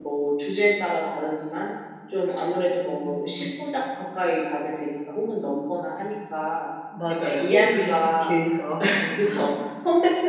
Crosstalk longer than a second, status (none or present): present